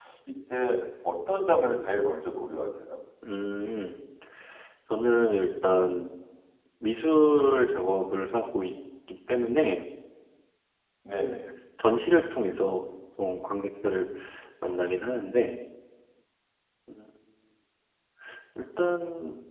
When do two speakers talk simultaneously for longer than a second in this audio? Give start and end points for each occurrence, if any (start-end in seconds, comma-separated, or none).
none